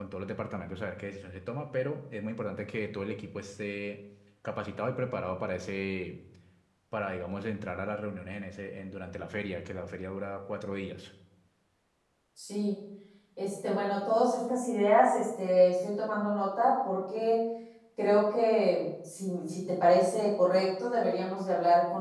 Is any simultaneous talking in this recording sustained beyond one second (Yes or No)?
No